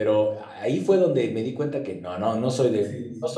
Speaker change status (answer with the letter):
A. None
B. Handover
B